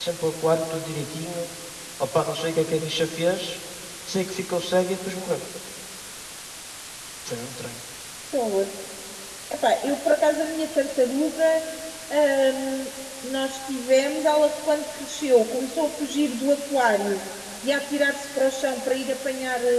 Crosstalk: none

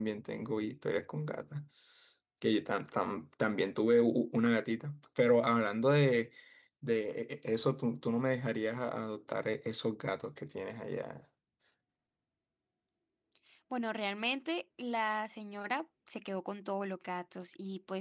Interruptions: none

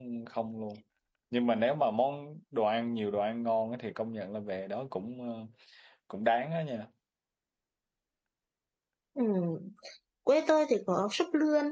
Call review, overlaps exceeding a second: none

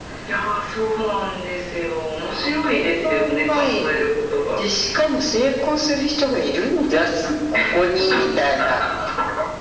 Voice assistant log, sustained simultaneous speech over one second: present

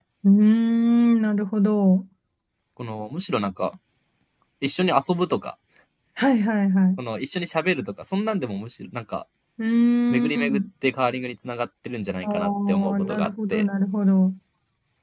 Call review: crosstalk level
present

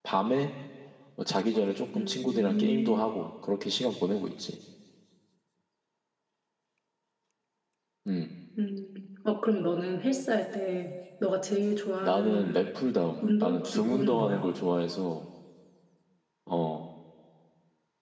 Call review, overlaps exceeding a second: present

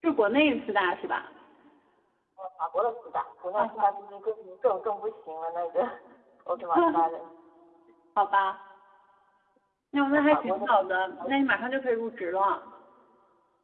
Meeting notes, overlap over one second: present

